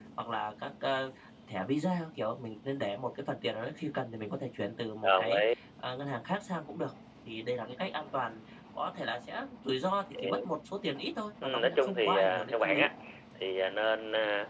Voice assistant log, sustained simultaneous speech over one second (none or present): present